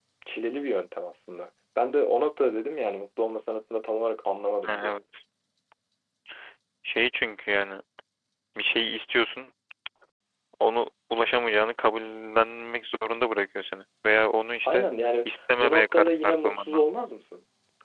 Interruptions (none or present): present